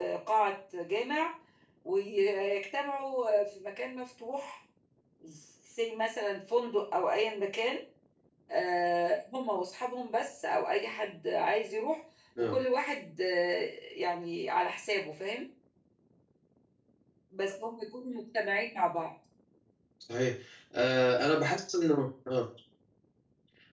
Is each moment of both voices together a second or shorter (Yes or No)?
Yes